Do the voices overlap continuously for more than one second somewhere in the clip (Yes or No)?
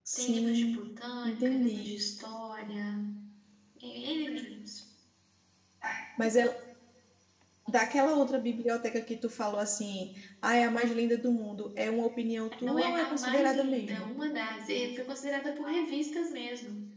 Yes